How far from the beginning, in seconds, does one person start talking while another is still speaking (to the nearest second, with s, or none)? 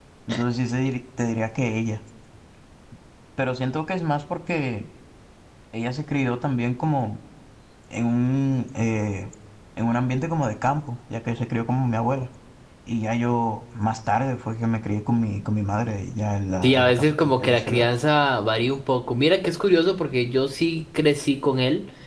17 s